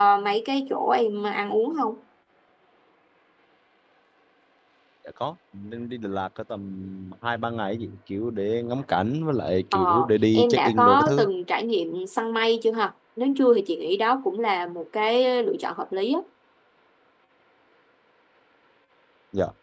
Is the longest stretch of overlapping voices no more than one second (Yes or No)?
No